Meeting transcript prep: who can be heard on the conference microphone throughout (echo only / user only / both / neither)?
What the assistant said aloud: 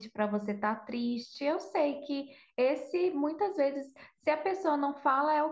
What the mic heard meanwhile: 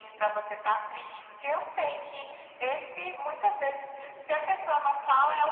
echo only